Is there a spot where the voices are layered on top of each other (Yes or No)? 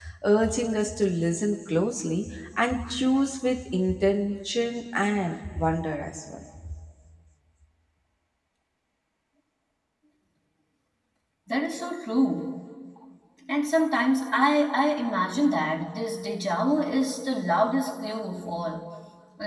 No